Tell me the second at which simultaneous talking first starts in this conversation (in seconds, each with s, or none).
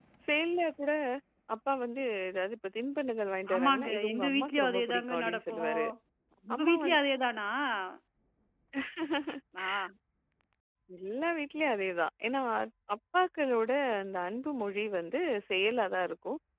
3.5 s